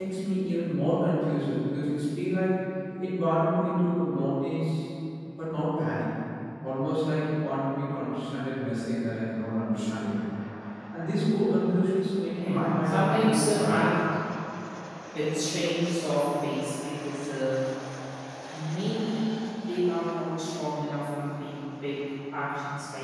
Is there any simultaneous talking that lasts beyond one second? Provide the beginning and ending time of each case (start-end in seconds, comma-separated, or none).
12.4-13.9